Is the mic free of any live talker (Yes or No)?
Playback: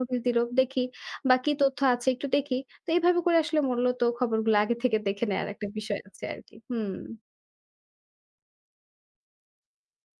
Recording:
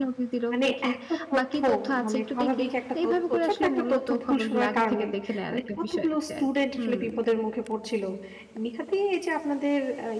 No